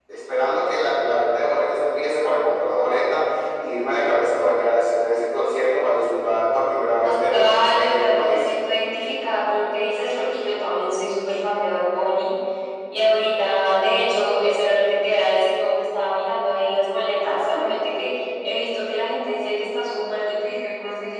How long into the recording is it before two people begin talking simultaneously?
7.0 s

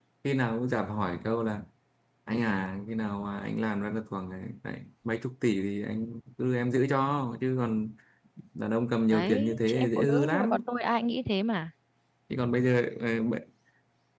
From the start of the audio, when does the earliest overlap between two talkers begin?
9.1 s

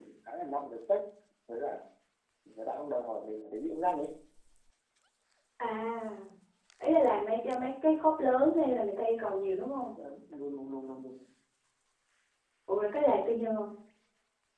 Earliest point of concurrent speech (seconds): none

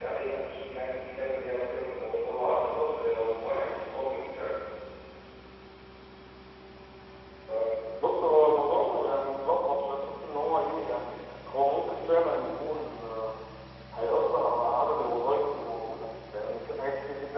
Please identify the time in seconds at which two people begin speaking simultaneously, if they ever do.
none

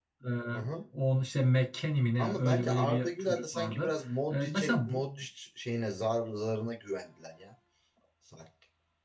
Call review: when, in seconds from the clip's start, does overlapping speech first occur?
2.2 s

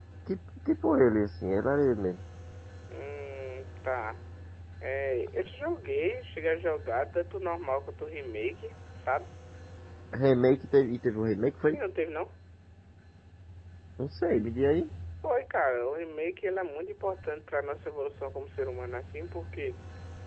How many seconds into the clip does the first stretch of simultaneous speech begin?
none

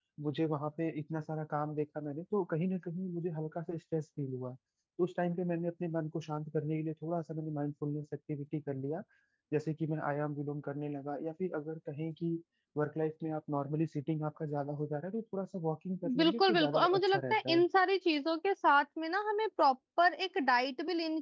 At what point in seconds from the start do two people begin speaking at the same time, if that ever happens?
16.0 s

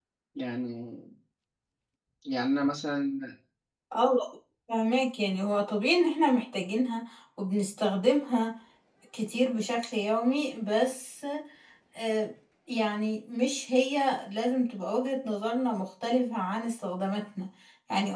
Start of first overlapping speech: none

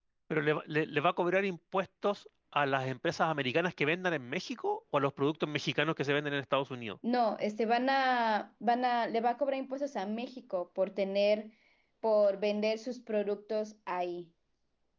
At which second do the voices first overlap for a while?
none

